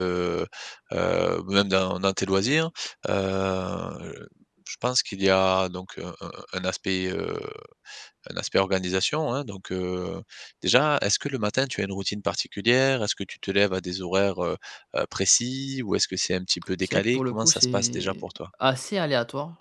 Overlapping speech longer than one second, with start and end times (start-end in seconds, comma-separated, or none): 16.8-18.2